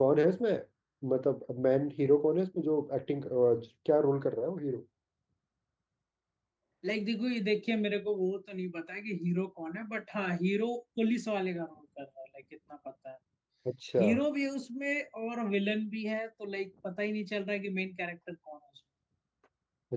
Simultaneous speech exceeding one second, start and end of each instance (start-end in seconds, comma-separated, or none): none